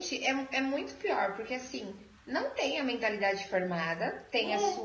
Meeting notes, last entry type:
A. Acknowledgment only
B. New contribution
A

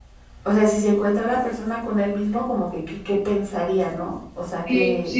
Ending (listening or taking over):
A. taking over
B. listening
A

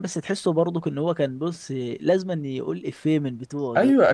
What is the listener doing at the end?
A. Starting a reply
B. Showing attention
A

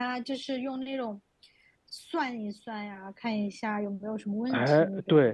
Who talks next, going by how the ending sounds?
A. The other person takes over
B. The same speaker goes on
A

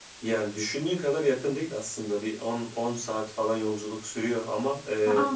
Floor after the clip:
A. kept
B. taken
A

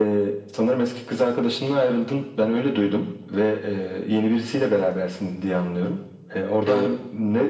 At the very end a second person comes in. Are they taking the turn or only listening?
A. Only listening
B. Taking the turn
A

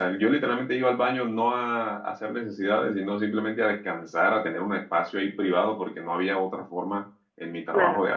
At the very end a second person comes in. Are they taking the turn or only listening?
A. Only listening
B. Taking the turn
A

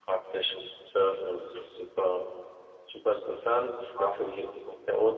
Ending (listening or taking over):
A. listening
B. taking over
A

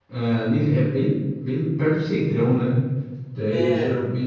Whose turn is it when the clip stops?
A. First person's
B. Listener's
A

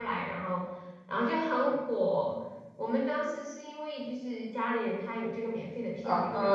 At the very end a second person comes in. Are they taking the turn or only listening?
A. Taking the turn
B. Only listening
A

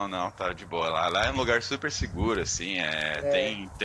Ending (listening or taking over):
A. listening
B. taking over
A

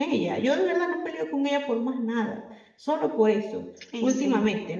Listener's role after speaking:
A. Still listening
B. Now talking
A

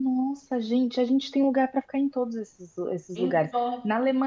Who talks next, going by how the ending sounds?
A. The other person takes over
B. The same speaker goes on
B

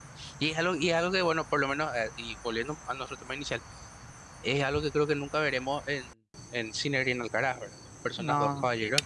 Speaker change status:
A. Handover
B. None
B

